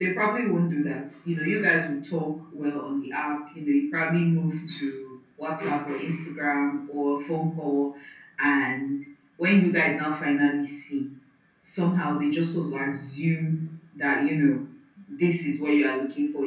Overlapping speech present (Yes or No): No